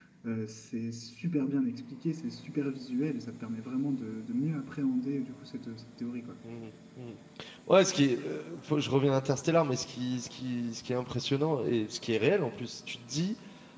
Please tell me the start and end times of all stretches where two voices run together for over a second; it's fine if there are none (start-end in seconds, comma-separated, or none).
none